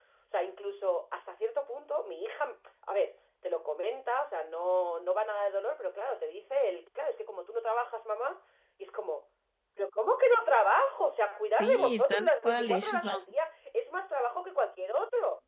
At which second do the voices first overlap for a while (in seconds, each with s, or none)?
11.6 s